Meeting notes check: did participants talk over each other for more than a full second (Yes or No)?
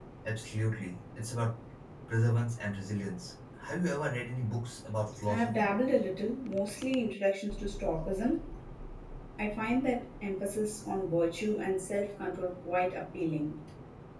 No